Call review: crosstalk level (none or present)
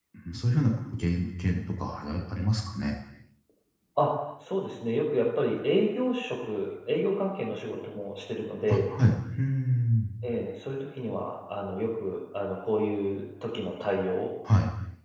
none